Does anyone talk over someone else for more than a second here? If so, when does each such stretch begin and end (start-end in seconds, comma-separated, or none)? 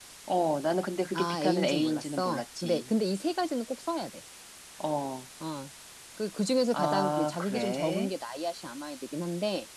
1.1-2.9, 6.7-8.1